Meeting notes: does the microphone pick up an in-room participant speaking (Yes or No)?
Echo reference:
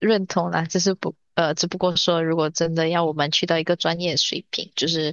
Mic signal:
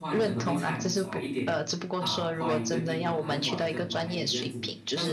Yes